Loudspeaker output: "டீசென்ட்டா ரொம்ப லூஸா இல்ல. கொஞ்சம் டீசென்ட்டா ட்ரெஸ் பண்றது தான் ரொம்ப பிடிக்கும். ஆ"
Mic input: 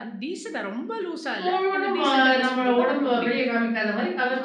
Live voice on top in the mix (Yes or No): Yes